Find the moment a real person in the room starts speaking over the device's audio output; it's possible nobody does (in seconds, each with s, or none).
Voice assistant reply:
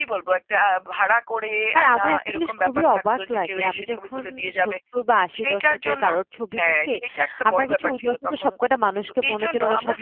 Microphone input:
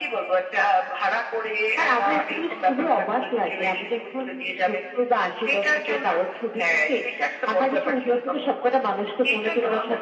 none